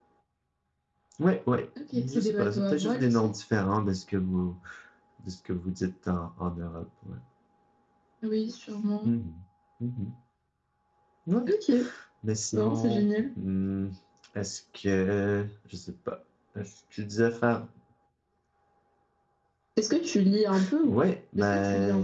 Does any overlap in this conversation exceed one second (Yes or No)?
Yes